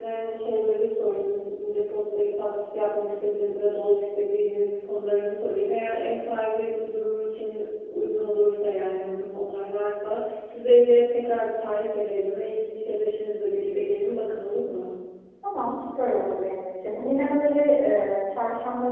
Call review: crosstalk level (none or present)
none